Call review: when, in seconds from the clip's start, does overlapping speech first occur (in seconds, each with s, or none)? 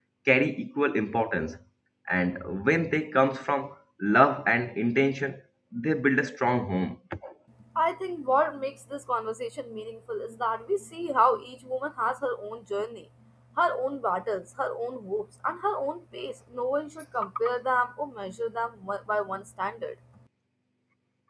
none